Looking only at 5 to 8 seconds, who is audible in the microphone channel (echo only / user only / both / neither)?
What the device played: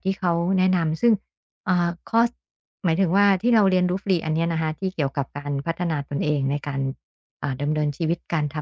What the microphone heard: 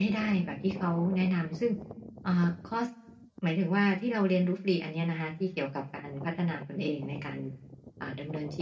echo only